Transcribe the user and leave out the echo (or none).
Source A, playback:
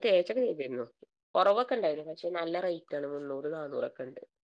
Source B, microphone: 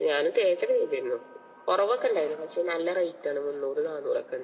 none